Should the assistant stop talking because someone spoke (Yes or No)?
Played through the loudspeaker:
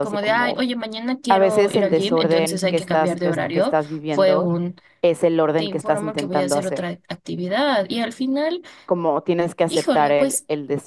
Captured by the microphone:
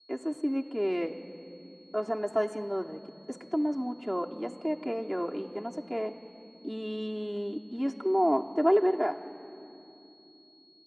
Yes